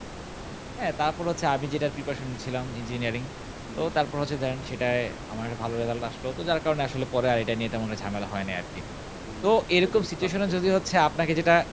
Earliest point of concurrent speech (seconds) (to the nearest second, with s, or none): 9 s